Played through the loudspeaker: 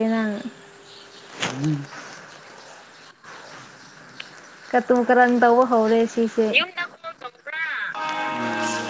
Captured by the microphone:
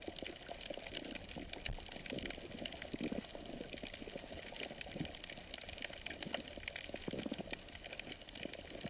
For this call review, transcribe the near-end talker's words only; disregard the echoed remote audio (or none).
none